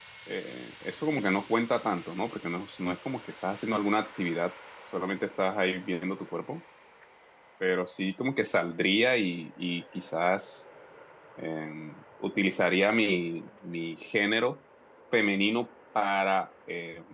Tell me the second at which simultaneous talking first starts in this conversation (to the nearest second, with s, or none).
none